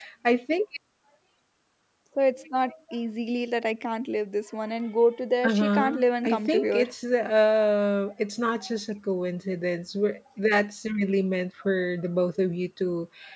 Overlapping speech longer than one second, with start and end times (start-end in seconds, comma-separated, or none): 5.4-6.8